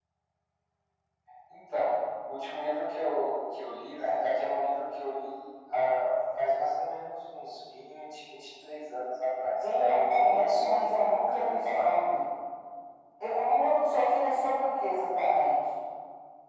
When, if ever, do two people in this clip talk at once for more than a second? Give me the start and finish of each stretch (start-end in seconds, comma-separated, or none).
9.6-11.9